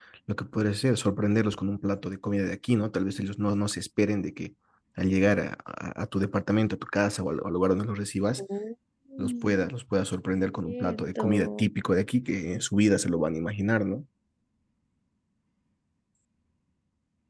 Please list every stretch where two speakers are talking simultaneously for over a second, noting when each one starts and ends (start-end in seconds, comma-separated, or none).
10.4-11.7